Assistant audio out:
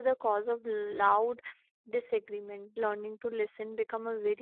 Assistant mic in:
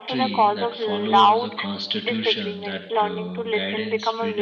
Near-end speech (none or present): present